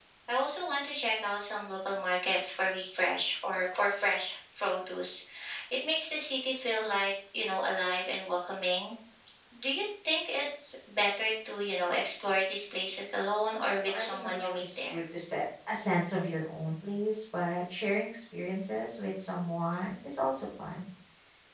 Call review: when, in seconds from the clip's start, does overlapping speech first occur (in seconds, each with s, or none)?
13.7 s